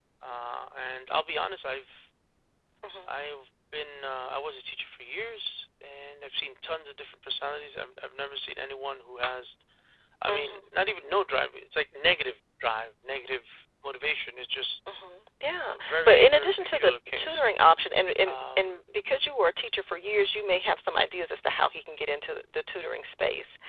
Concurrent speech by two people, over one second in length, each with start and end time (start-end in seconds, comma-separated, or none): 15.7-17.5